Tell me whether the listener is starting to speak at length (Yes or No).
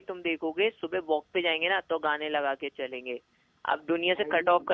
No